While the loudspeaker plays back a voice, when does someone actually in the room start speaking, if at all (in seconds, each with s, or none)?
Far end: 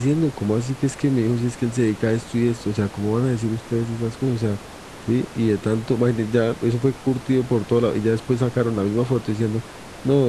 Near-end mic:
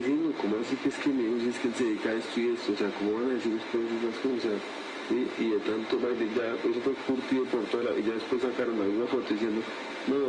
none